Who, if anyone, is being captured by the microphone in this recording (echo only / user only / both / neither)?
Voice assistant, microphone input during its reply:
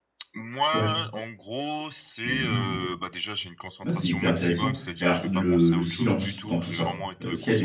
both